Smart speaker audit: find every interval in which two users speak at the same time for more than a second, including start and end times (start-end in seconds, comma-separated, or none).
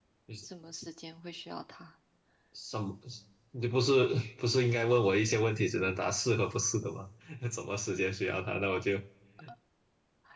none